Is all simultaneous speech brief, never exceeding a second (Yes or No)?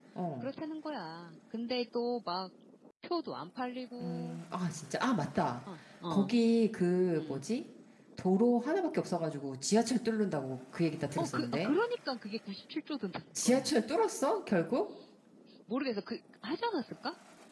Yes